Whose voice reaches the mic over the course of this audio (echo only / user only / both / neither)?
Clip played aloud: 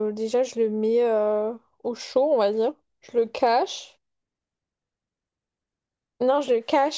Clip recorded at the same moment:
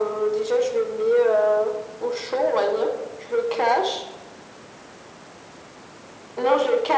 echo only